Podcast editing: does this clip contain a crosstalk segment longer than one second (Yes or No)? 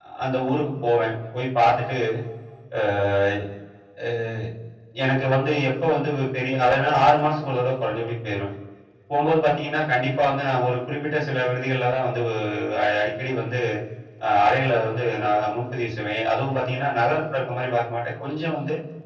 No